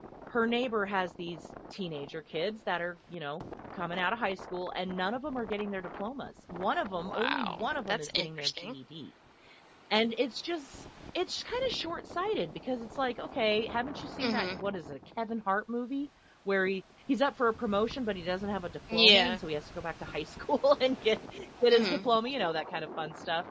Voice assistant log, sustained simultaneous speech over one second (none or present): present